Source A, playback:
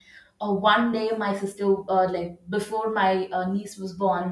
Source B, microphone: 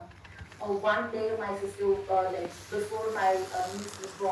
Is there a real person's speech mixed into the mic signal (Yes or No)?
No